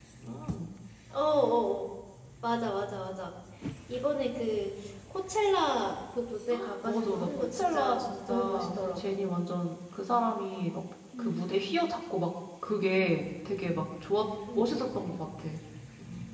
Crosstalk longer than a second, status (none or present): present